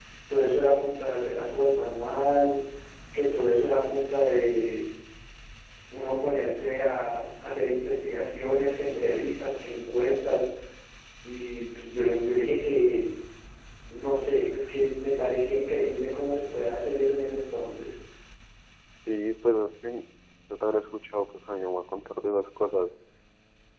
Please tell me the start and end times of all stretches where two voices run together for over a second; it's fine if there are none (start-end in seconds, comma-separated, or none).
none